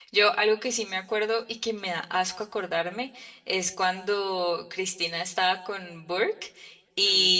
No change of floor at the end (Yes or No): Yes